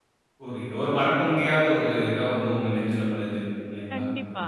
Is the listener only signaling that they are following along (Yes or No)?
No